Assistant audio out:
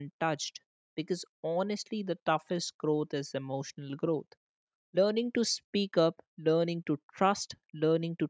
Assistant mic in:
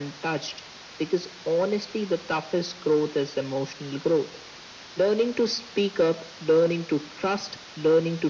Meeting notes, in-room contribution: none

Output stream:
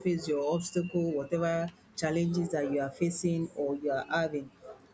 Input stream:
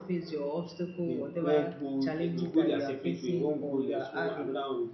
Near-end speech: present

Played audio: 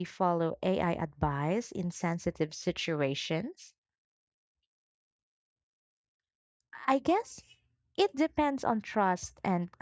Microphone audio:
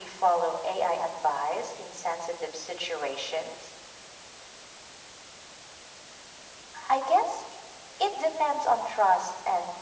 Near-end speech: none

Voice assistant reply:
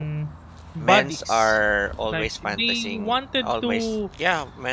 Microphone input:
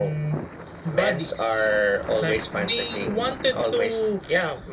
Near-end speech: none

